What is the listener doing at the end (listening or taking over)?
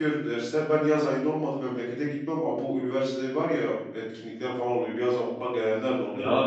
taking over